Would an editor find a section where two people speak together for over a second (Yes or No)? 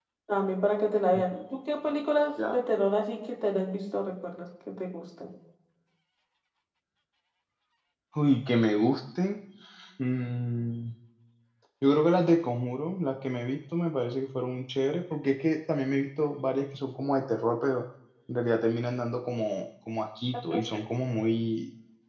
No